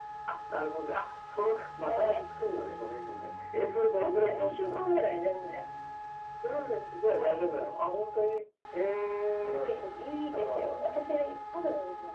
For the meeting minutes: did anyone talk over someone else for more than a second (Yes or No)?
Yes